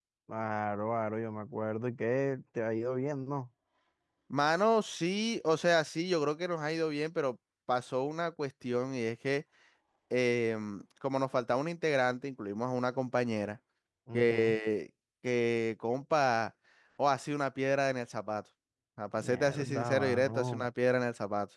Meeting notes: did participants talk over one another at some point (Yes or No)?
Yes